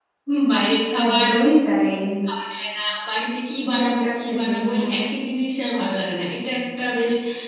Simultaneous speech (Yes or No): Yes